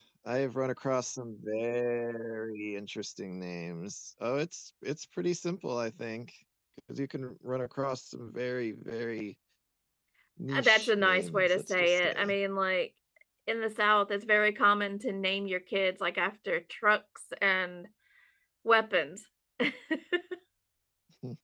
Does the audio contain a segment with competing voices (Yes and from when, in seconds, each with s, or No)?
Yes, from 10.6 s